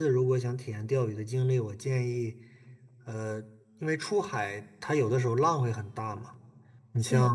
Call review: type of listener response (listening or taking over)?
listening